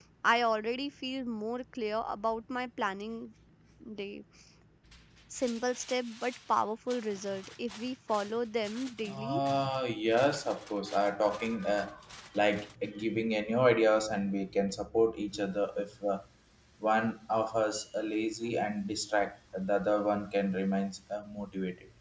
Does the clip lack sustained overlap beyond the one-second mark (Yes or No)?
Yes